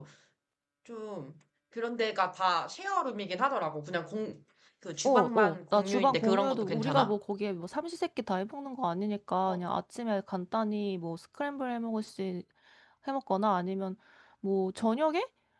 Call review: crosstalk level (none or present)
present